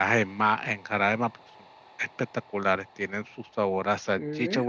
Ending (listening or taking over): listening